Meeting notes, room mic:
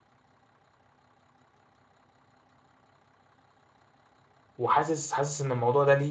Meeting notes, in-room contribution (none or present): present